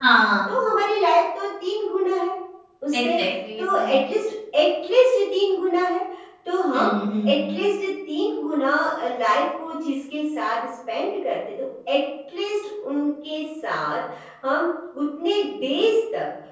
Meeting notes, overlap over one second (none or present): none